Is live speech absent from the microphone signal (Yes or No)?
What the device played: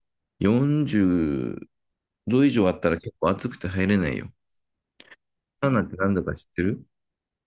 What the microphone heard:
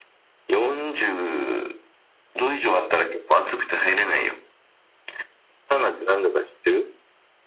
Yes